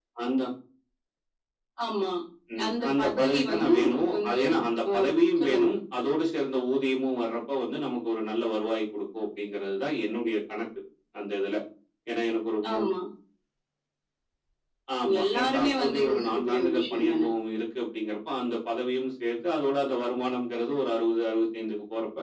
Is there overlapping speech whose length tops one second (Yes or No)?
Yes